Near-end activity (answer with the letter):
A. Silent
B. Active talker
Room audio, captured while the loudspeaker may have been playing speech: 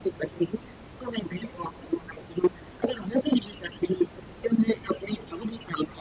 A